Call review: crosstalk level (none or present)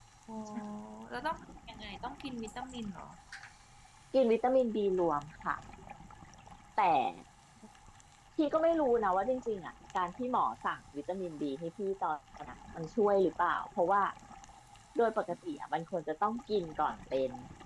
none